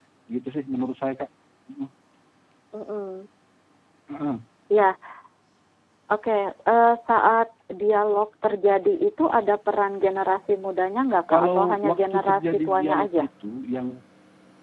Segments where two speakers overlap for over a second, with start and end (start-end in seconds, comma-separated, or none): 11.3-13.2